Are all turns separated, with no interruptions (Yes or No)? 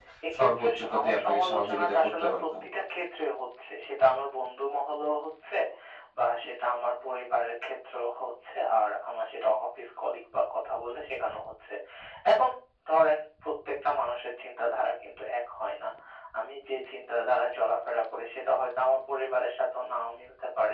No